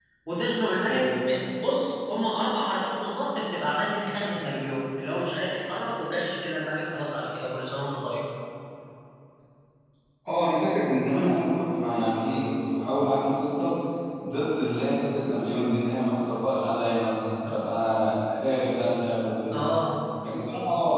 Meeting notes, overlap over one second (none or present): none